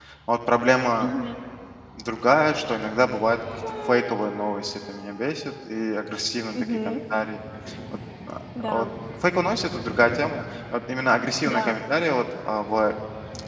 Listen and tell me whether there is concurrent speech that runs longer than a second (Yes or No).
No